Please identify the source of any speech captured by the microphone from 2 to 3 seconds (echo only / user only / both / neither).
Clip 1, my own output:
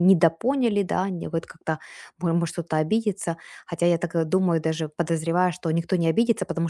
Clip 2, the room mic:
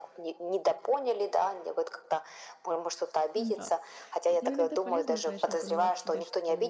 echo only